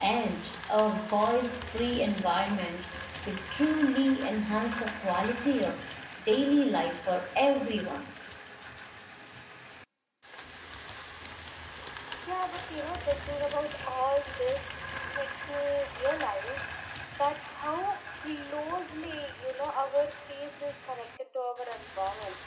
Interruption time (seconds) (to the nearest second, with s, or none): none